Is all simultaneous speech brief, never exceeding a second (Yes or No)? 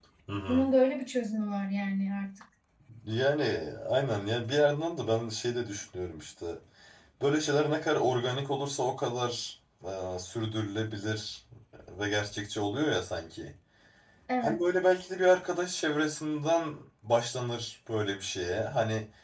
Yes